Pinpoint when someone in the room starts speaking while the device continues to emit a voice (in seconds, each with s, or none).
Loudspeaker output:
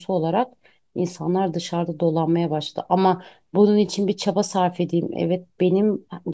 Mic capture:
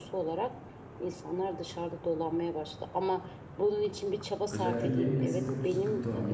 4.5 s